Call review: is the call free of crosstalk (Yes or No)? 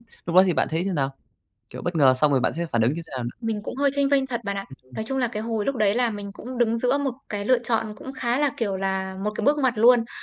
Yes